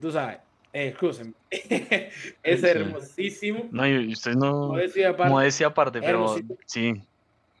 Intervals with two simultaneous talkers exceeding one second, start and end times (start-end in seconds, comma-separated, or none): none